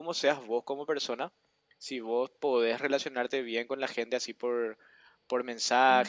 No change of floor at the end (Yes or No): Yes